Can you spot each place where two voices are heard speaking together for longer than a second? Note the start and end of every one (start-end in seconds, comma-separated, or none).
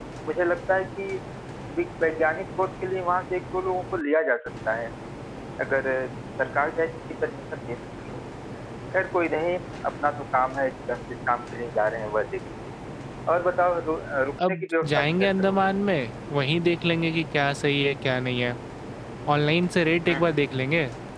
14.4-15.7